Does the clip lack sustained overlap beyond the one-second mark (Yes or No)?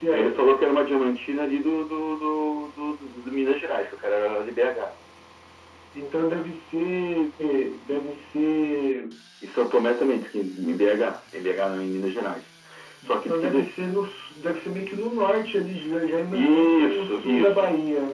No